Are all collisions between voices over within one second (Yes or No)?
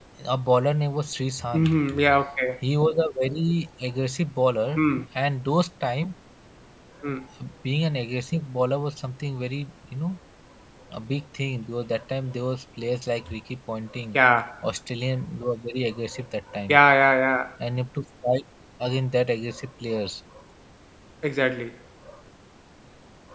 Yes